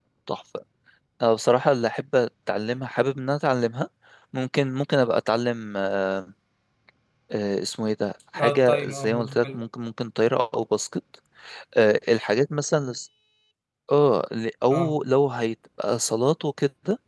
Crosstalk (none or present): present